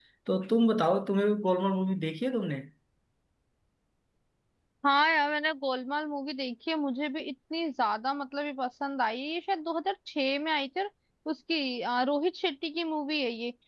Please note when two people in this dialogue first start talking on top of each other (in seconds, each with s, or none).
none